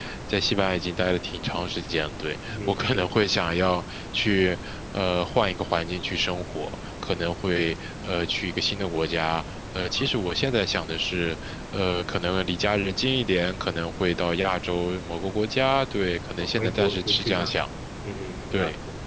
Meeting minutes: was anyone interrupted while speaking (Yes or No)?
Yes